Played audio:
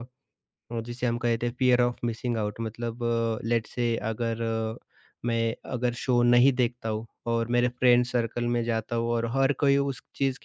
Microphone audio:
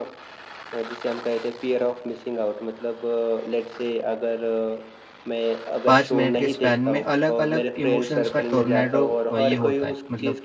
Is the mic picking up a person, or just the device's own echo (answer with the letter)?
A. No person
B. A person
B